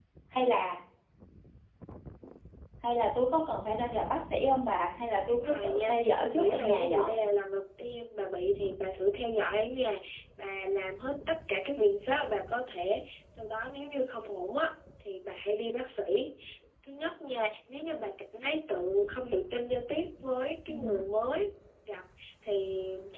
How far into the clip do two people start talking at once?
5.3 s

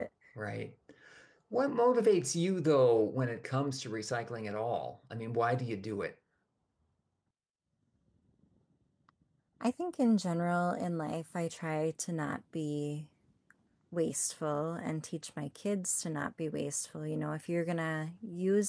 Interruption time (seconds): none

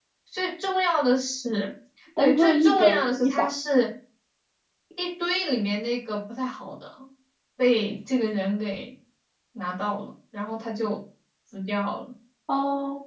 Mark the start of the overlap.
2.2 s

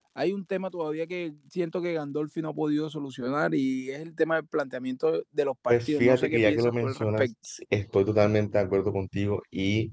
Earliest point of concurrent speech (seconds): 5.7 s

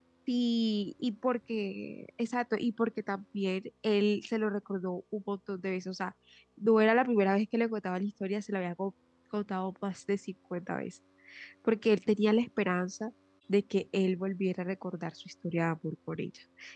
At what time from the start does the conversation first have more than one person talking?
none

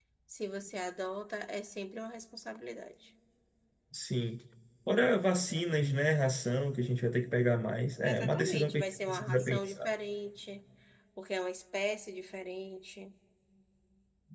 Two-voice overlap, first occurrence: 8.0 s

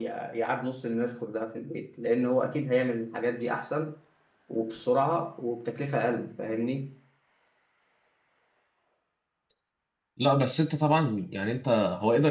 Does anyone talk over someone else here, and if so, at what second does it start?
none

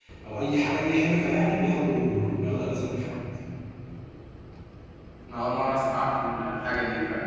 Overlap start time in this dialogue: none

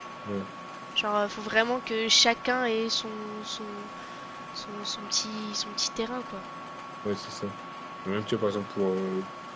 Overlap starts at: none

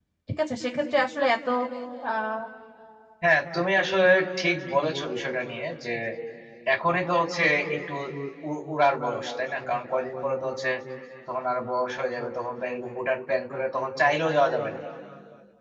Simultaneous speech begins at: none

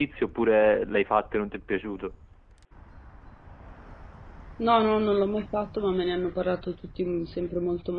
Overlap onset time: none

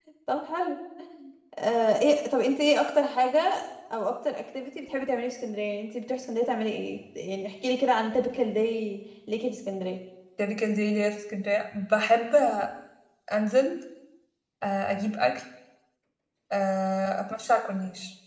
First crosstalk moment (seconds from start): none

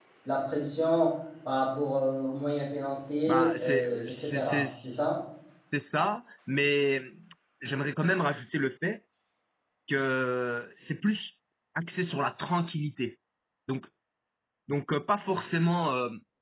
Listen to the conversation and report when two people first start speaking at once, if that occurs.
3.3 s

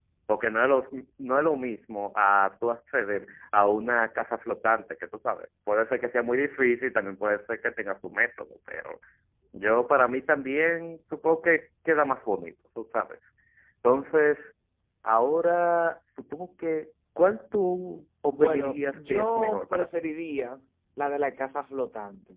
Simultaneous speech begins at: 18.3 s

